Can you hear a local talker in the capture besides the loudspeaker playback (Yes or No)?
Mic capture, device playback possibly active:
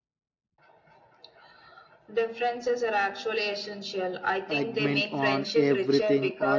Yes